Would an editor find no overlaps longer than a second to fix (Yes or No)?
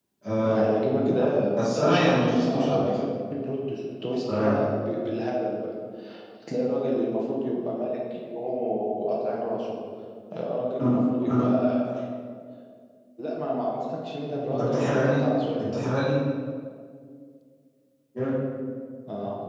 No